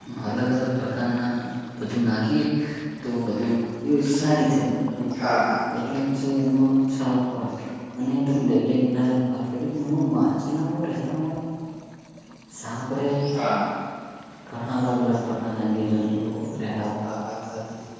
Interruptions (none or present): none